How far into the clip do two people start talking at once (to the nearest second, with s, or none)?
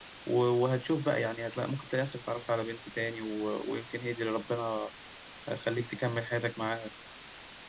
none